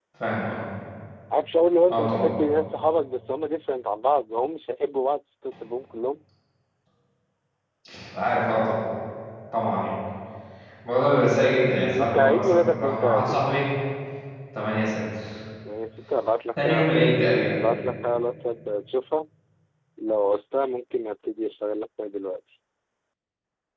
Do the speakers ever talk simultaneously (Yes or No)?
Yes